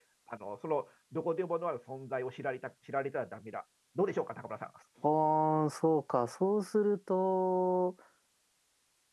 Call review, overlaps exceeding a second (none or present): none